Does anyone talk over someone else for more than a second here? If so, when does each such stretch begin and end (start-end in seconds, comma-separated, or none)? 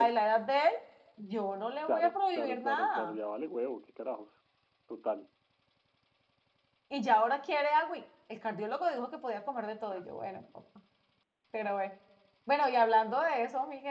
1.9-3.2